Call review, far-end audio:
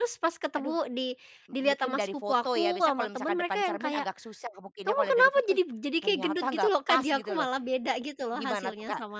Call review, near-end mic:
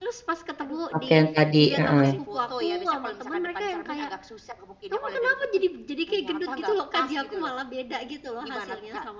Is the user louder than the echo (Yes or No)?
Yes